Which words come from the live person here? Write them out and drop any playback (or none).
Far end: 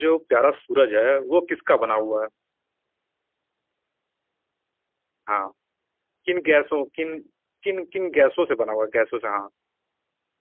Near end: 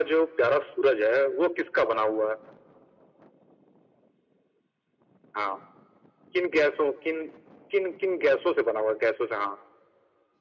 none